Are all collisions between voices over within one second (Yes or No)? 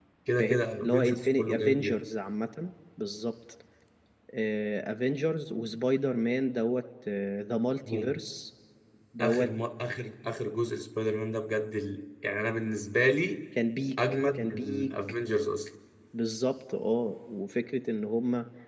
No